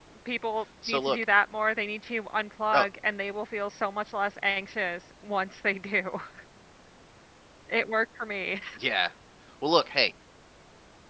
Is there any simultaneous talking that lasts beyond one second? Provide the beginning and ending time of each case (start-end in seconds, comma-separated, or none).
none